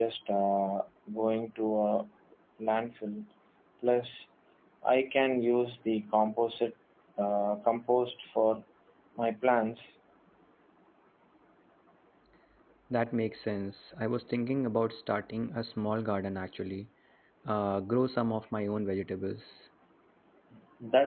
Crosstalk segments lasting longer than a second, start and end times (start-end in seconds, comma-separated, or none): none